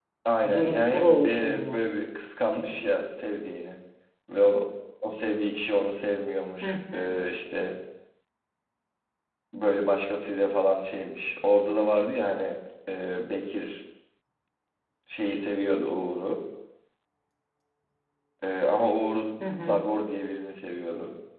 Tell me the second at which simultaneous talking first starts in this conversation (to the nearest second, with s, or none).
1 s